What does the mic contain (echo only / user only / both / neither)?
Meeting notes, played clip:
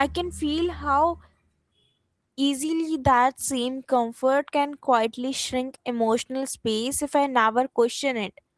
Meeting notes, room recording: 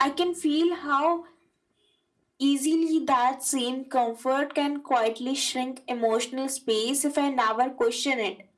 echo only